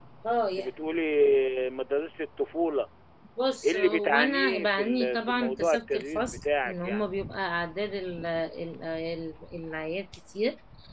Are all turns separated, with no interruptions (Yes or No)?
No